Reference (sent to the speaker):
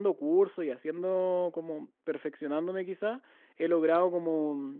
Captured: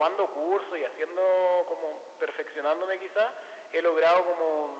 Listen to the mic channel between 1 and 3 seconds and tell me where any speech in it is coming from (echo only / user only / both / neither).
echo only